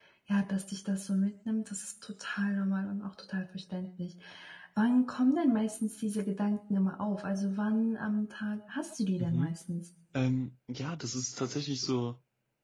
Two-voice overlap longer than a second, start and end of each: none

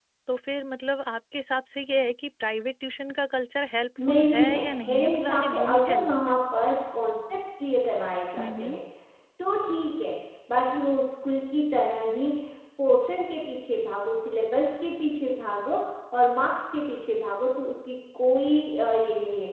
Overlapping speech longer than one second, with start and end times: 4.0-6.2

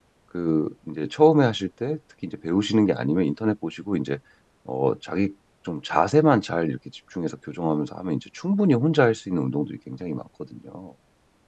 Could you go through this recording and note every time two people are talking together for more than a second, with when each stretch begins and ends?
none

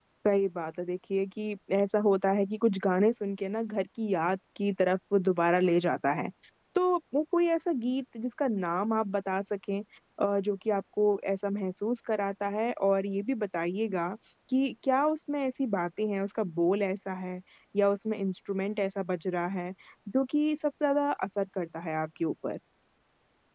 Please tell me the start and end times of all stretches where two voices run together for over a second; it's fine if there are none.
none

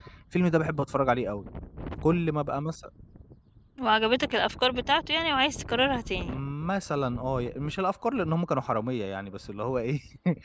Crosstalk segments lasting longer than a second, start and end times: none

